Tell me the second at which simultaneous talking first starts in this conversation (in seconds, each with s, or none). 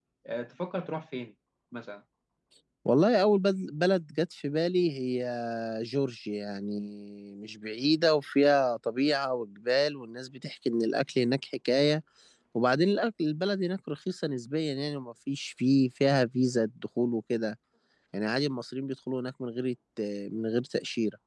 none